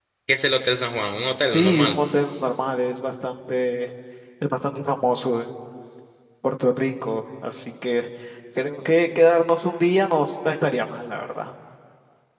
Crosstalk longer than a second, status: none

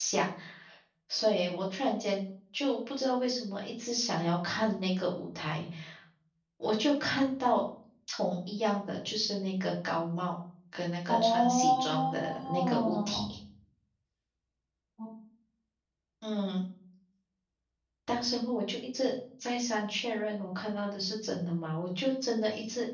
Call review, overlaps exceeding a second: present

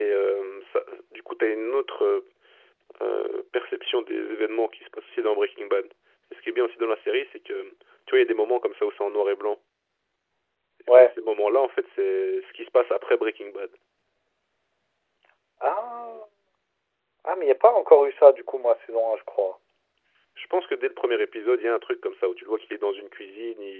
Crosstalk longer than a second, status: none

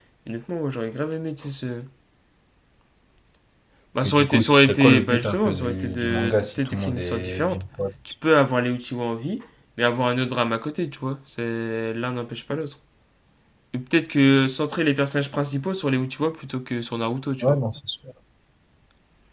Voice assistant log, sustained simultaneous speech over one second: present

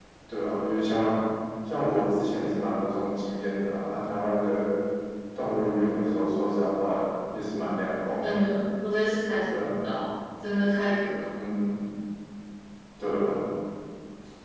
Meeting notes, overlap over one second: none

